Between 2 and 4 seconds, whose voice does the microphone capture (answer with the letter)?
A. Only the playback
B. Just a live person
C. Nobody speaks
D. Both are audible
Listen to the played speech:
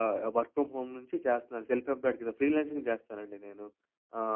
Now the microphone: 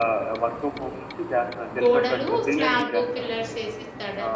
D